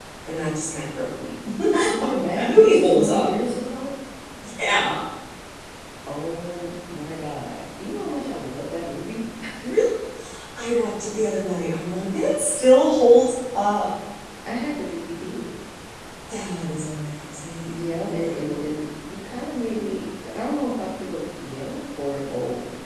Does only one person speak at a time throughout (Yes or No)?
No